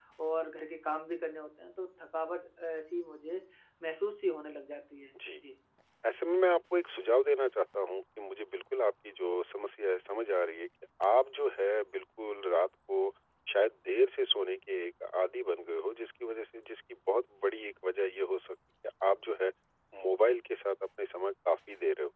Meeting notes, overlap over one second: none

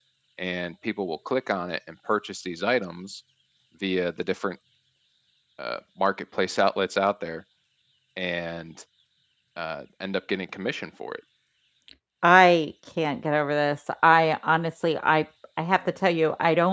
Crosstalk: none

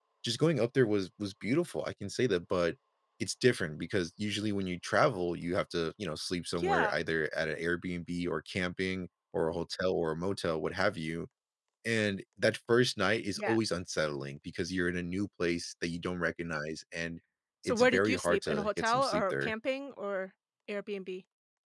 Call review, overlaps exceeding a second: present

